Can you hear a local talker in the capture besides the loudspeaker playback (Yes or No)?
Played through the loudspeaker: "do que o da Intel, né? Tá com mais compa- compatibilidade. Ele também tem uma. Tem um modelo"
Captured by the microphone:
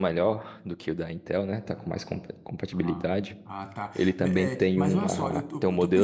Yes